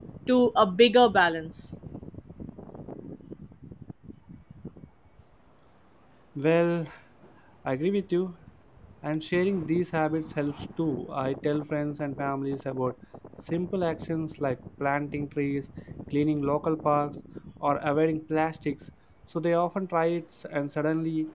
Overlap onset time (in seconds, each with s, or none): none